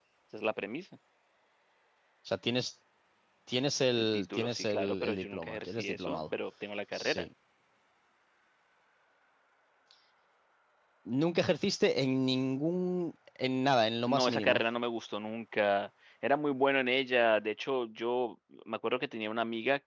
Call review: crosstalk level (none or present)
present